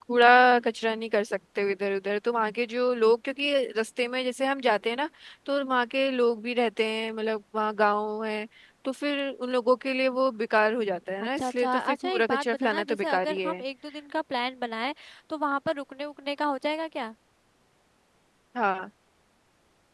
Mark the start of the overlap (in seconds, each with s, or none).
11.2 s